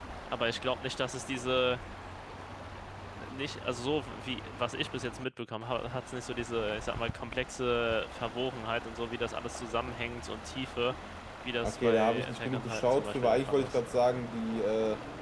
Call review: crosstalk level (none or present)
present